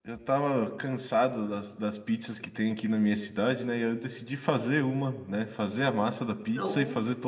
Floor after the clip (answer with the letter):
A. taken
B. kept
B